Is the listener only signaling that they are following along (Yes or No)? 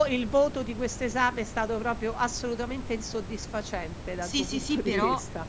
No